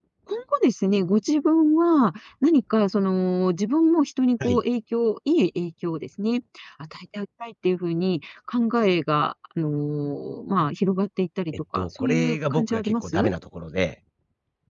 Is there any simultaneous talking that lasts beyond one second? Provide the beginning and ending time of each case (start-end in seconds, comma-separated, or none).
11.7-13.3